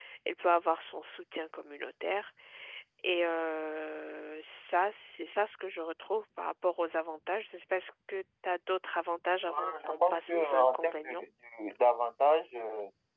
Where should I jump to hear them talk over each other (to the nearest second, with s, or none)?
9 s